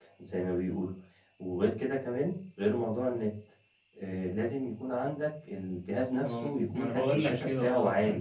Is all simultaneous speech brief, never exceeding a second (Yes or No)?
No